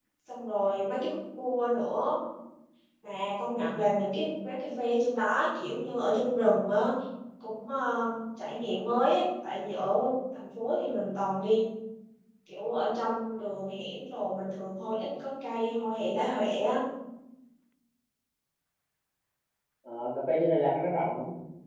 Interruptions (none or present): none